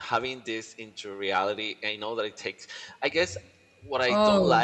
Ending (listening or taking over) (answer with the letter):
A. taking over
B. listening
B